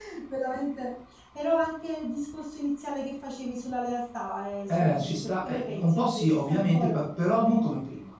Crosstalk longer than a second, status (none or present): present